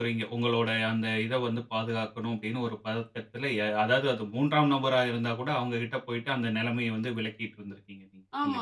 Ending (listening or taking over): taking over